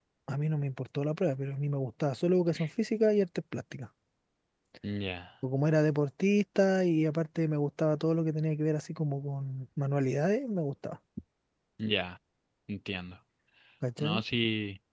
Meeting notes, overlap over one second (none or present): none